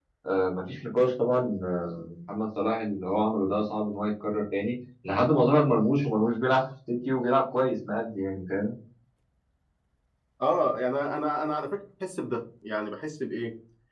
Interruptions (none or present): none